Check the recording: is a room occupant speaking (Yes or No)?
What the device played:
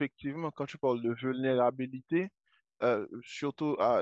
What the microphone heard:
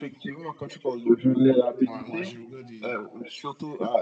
Yes